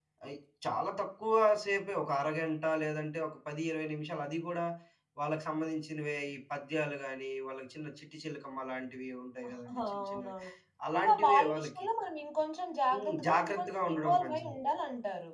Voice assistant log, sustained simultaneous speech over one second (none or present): present